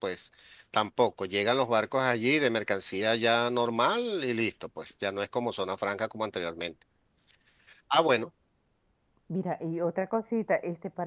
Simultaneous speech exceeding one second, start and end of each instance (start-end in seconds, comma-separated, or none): none